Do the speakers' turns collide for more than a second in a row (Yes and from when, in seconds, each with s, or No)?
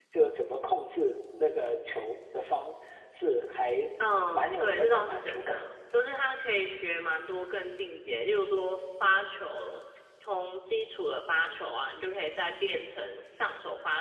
Yes, from 4.3 s